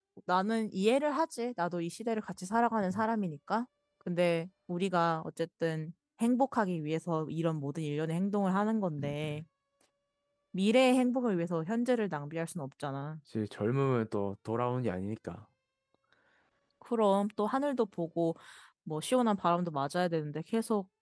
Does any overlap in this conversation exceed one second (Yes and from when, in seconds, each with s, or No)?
No